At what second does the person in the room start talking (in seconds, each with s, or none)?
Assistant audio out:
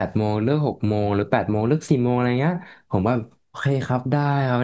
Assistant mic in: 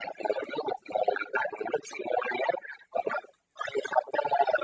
none